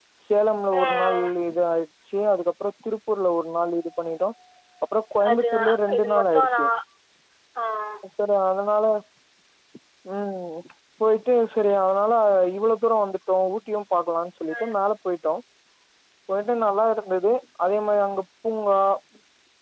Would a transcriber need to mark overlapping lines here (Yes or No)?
Yes